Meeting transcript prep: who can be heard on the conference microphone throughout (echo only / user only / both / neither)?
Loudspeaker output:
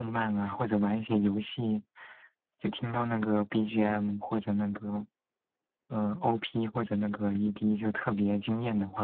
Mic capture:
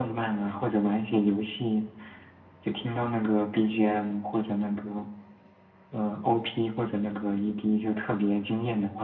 echo only